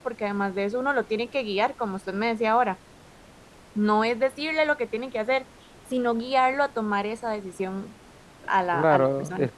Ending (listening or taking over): taking over